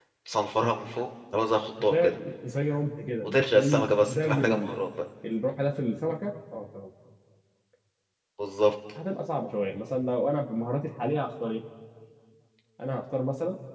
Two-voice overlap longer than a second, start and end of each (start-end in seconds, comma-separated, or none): 3.2-4.7